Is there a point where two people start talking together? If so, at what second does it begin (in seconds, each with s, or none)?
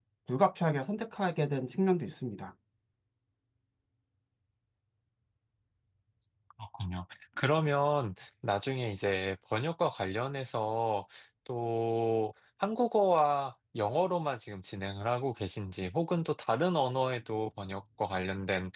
none